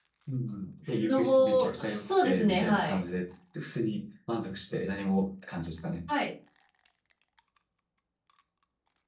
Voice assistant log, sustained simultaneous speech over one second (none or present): present